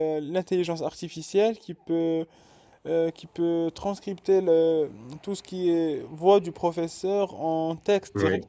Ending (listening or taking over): listening